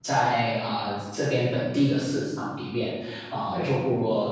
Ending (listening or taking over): listening